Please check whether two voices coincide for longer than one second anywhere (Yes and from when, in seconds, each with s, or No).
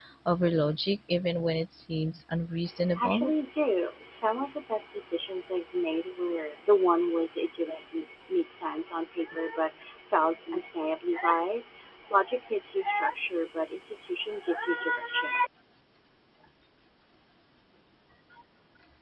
No